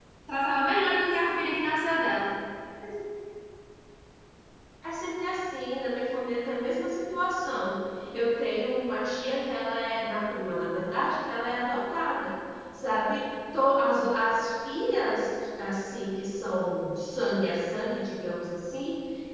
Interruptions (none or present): none